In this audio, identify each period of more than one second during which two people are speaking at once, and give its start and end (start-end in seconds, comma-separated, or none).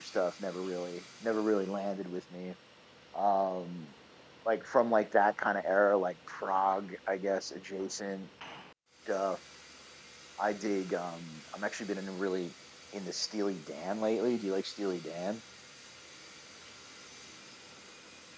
none